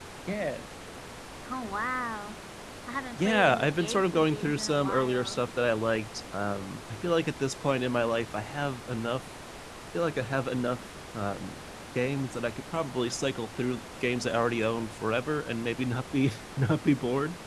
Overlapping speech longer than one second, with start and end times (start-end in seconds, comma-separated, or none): 3.2-5.4